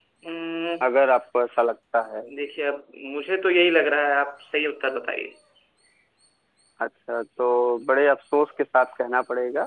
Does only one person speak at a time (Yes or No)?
Yes